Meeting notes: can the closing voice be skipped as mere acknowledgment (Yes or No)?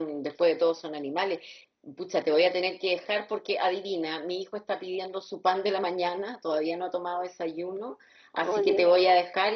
Yes